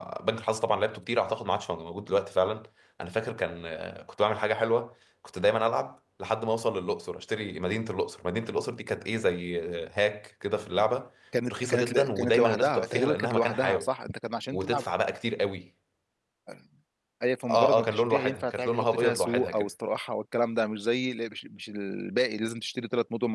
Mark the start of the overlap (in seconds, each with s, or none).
11.5 s